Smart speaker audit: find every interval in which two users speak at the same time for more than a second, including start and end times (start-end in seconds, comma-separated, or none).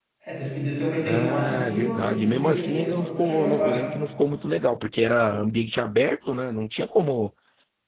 1.0-4.0